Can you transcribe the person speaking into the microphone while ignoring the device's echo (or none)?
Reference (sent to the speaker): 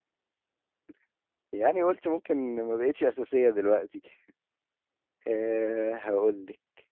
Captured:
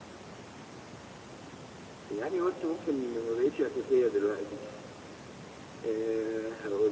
none